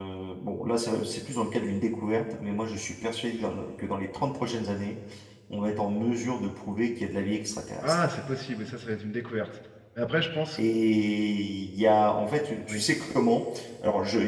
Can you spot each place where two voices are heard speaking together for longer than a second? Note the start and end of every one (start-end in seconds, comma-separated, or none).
none